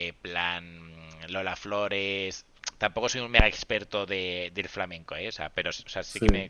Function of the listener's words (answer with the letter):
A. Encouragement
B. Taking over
A